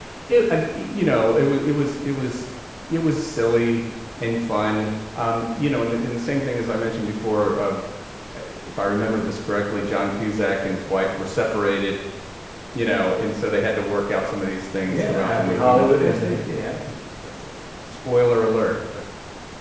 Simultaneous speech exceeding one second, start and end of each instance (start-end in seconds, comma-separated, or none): 14.9-16.7